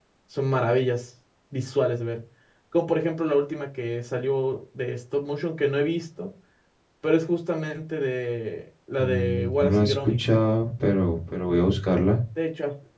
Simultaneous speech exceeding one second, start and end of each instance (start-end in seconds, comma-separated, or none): 9.0-10.2